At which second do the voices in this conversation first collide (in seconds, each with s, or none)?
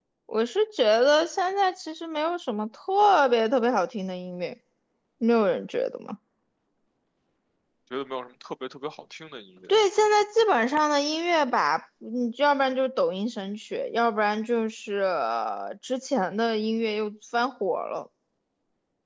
none